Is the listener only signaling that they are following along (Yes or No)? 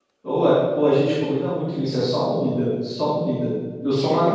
Yes